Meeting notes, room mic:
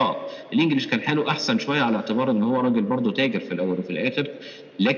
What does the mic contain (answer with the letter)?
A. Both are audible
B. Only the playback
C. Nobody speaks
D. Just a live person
B